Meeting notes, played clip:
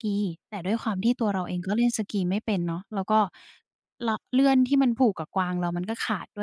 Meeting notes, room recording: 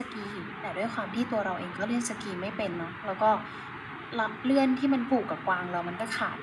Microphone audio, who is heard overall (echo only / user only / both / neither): echo only